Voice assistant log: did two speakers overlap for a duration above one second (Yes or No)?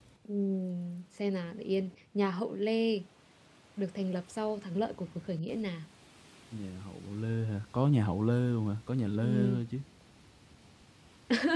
No